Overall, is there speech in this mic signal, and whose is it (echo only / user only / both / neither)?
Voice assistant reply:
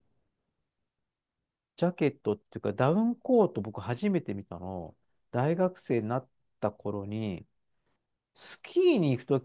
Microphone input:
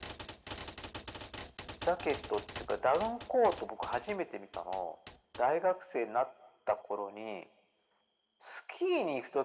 echo only